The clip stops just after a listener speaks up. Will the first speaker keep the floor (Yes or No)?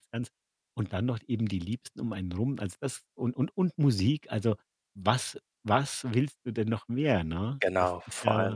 No